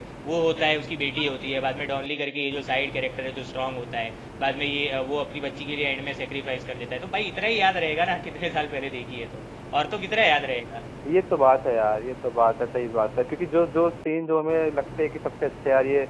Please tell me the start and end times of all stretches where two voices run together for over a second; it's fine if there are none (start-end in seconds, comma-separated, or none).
none